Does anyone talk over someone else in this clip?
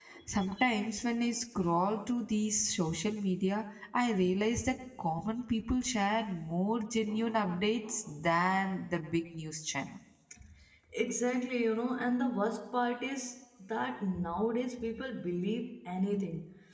No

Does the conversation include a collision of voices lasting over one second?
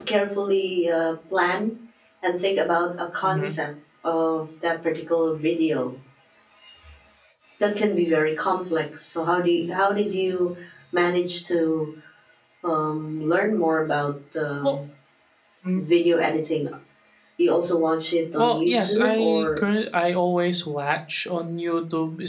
Yes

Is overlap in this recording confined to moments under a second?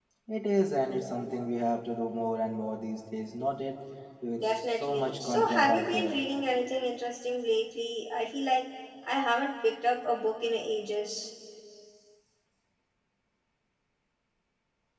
No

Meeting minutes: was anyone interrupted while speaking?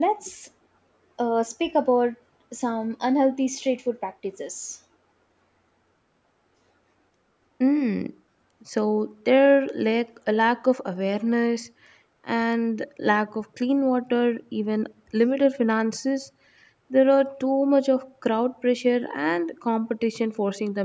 No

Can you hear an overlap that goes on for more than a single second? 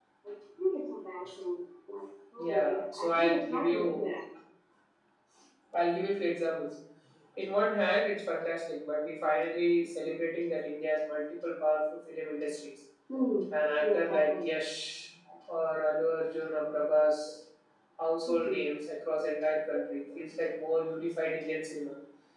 Yes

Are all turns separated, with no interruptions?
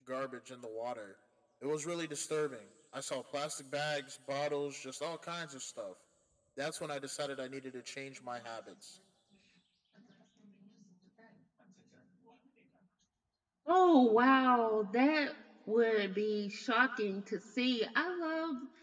Yes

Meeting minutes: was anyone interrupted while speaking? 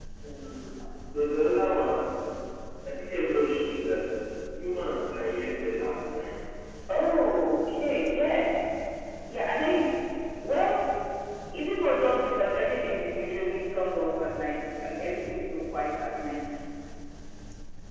No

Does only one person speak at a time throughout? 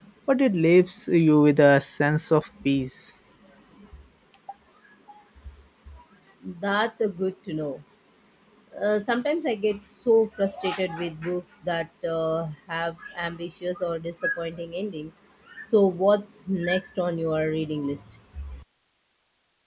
Yes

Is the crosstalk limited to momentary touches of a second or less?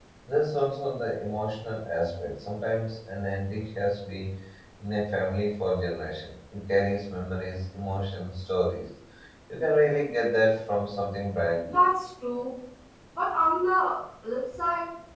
Yes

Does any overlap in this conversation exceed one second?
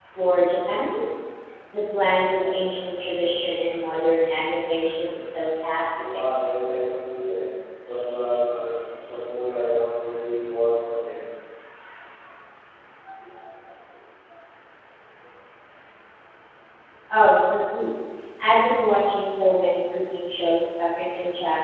No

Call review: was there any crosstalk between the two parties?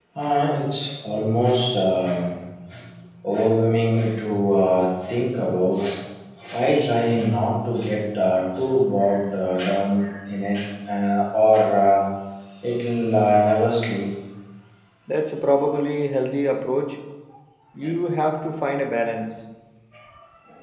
No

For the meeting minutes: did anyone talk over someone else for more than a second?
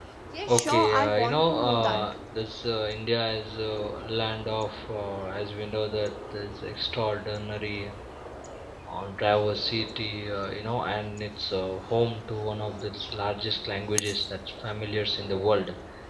Yes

